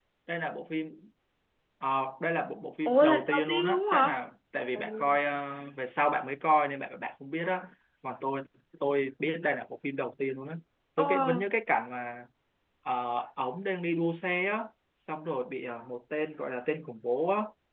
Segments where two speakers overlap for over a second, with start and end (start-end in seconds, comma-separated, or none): 2.9-4.2